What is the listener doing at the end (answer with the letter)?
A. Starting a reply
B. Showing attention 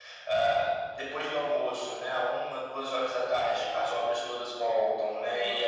B